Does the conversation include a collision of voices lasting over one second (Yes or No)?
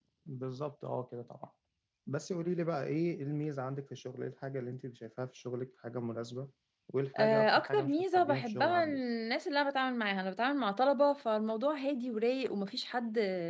Yes